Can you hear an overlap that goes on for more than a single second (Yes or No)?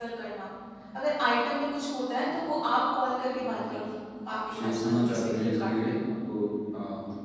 Yes